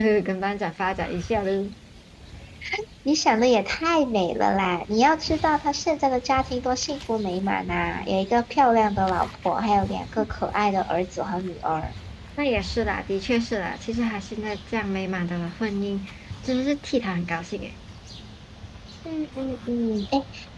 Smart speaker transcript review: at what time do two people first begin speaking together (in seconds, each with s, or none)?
none